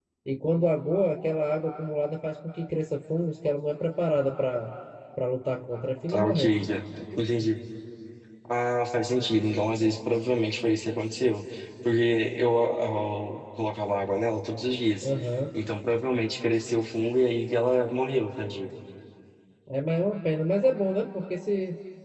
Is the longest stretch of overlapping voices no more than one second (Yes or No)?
Yes